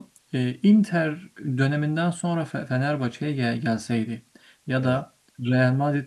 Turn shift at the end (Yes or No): No